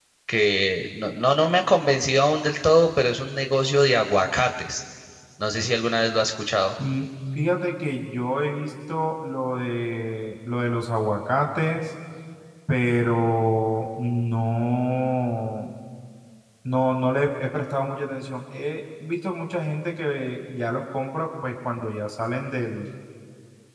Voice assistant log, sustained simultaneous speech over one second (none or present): none